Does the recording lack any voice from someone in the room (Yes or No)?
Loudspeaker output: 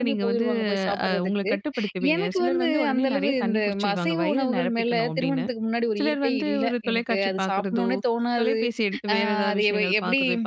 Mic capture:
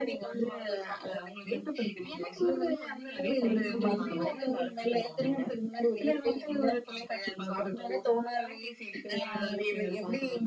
No